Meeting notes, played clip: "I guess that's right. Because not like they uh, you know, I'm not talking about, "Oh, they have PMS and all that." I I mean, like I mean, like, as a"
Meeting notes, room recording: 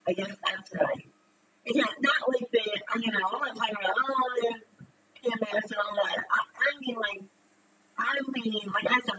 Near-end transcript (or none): none